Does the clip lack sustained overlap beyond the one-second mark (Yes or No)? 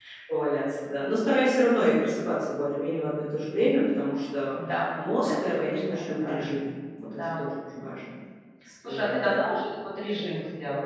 No